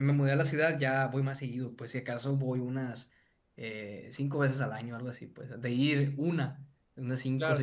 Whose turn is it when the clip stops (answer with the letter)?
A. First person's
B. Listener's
B